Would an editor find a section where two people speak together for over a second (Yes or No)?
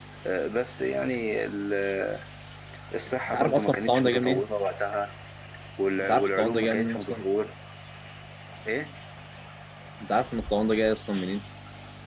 Yes